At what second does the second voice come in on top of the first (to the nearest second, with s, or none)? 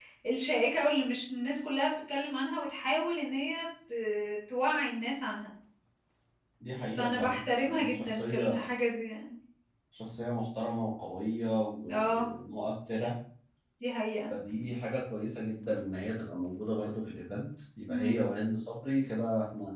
7 s